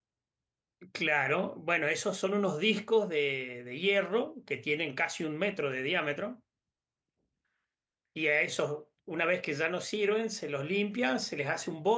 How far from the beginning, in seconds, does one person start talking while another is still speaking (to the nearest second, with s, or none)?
none